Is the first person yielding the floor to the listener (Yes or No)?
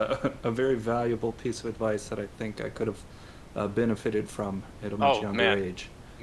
Yes